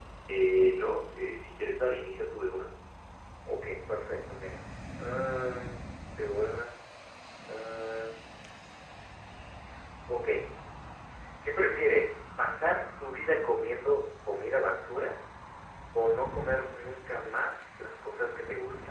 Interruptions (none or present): none